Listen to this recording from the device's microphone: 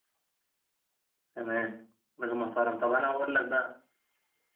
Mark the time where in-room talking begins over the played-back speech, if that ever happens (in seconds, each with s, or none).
1.3 s